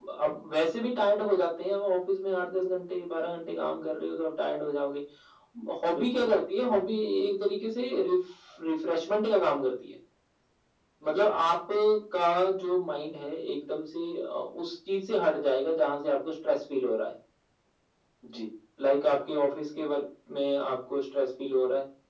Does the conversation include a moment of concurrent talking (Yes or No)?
Yes